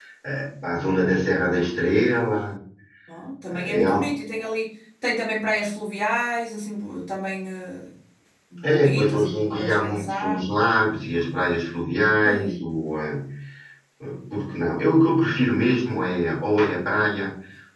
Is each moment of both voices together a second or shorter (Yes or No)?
No